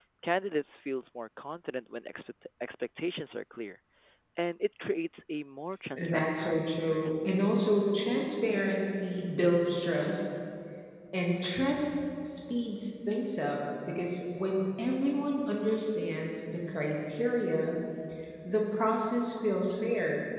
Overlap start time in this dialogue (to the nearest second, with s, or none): 6 s